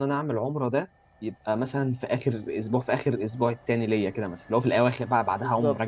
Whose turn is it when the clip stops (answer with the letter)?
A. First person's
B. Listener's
B